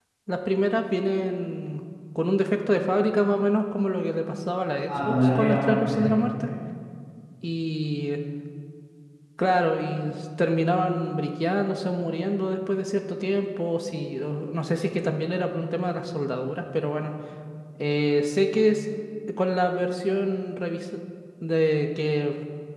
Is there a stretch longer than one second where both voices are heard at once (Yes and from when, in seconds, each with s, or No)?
Yes, from 4.9 s